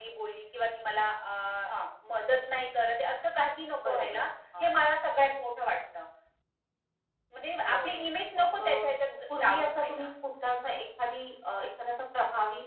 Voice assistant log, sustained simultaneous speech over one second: present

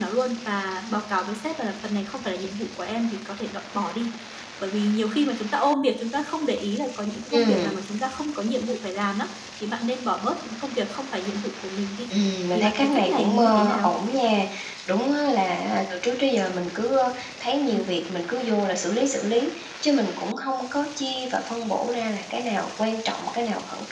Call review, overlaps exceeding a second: present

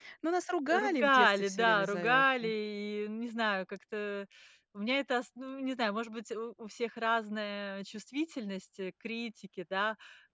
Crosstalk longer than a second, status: present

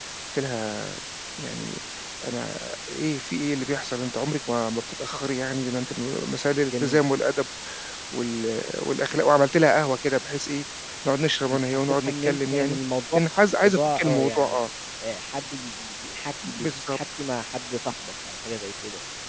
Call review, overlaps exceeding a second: present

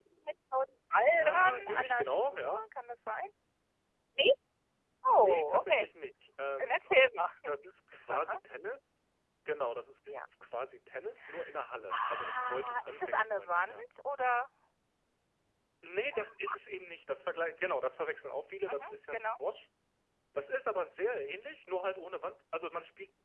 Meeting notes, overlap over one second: present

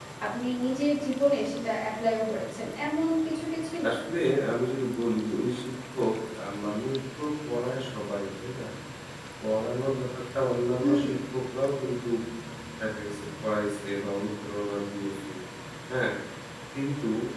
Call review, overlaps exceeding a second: none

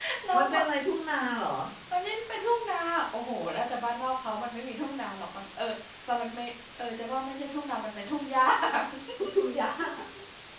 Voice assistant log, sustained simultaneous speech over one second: none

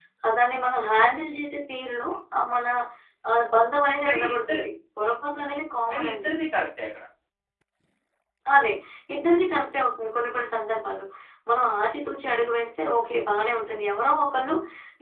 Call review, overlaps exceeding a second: none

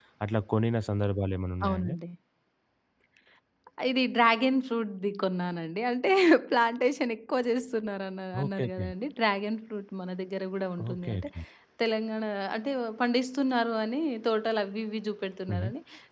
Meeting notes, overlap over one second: none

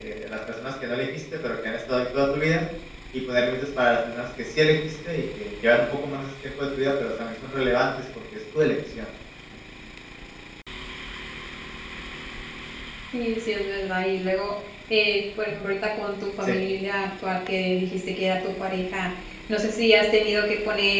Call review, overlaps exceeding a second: none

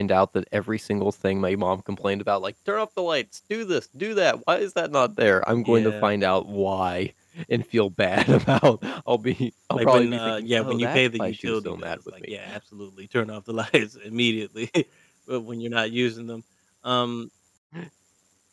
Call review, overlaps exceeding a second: present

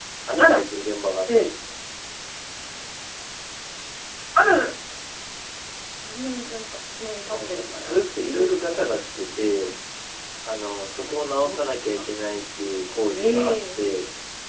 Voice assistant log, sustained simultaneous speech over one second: present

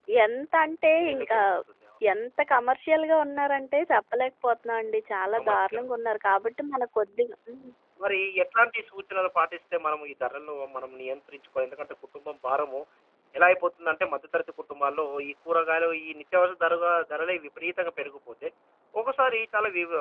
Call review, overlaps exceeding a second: none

